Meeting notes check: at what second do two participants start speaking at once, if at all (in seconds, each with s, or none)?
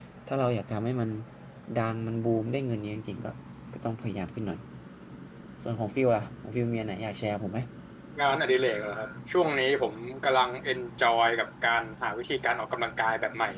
none